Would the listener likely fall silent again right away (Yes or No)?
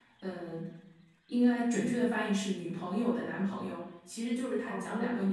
Yes